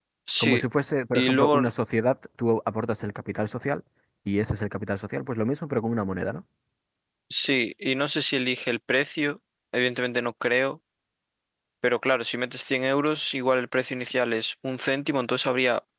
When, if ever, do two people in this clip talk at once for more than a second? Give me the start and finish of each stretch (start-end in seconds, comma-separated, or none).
none